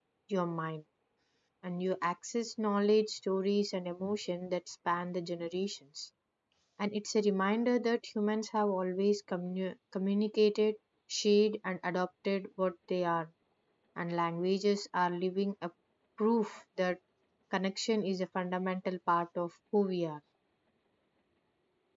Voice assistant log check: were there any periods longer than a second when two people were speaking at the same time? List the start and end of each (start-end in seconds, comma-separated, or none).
none